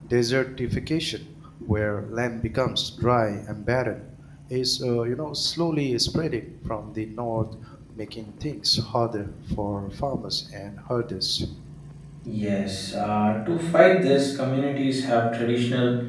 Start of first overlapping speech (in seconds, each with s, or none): none